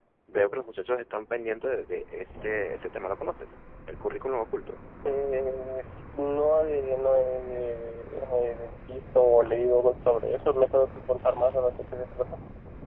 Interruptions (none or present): none